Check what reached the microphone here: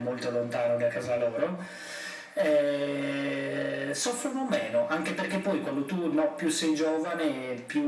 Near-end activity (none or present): none